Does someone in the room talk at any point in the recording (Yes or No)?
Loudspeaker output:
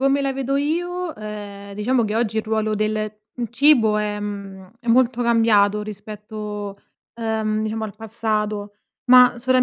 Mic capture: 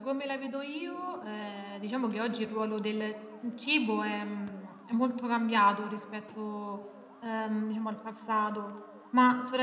No